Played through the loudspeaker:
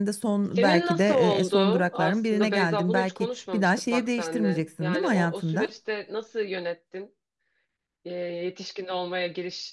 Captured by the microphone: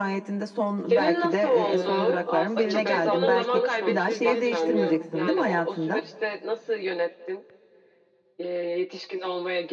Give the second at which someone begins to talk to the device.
1.7 s

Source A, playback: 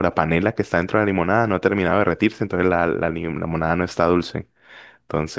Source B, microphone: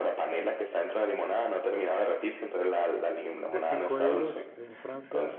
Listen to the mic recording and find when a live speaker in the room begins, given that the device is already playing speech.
3.5 s

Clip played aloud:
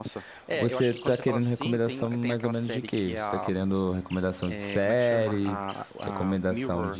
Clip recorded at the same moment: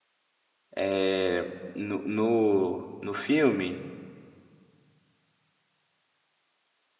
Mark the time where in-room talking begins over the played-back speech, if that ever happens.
0.7 s

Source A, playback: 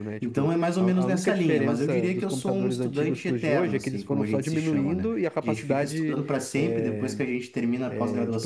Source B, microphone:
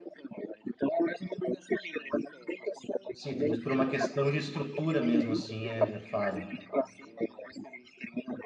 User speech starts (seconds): 3.2 s

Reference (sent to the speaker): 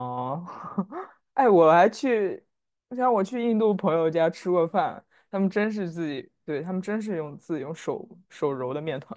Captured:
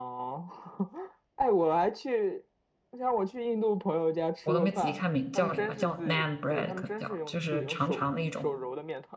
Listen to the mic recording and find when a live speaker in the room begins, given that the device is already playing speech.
4.4 s

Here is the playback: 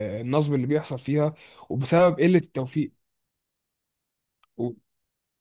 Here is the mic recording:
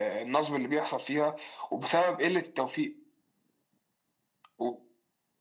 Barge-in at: none

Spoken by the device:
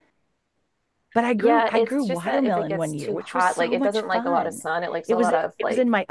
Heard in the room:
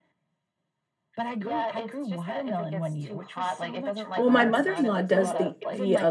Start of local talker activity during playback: 4.2 s

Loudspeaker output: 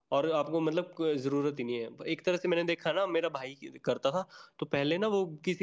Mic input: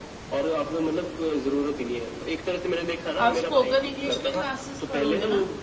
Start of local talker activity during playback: 3.2 s

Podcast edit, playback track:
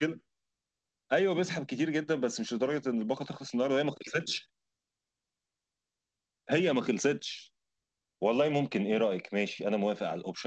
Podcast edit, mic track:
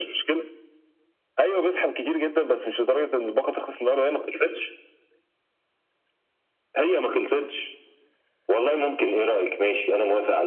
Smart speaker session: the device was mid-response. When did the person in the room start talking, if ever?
none

